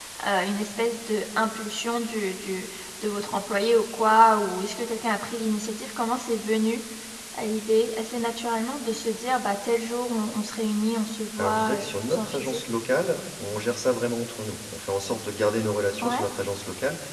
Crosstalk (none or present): present